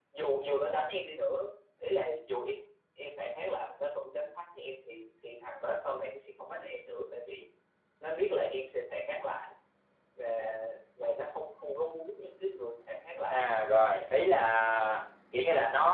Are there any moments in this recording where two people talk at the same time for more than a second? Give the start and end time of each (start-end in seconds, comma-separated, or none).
none